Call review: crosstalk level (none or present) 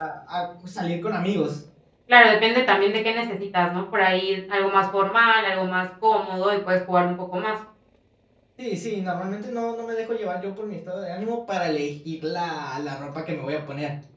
none